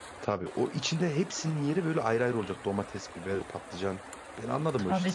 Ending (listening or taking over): taking over